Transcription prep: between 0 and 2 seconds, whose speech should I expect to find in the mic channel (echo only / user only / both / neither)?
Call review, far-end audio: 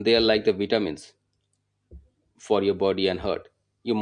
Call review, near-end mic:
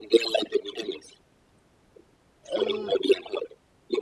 echo only